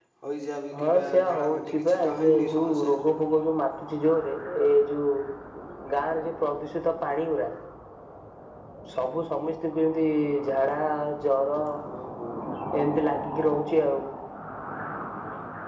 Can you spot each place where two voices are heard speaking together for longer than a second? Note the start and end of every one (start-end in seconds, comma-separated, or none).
0.8-2.9